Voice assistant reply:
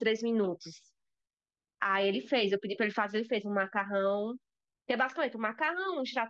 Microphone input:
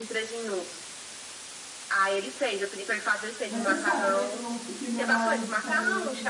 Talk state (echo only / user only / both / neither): both